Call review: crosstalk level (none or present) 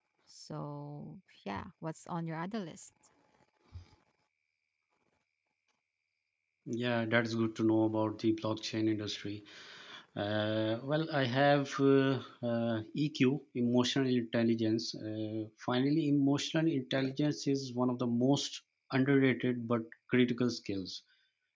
none